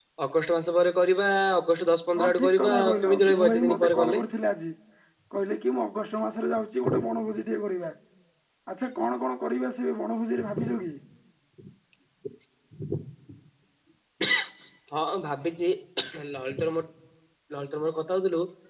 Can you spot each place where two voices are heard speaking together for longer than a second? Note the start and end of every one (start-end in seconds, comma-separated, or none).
2.2-4.2